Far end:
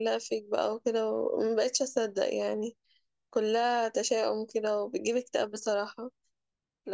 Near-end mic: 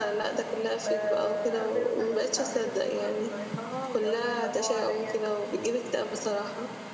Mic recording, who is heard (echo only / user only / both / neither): both